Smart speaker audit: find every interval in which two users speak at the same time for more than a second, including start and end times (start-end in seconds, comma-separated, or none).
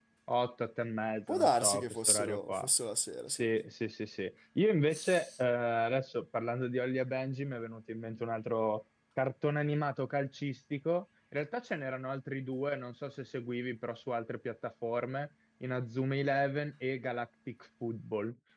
1.3-2.7